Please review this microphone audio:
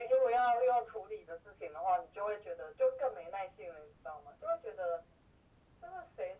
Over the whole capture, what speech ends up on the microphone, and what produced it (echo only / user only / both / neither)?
echo only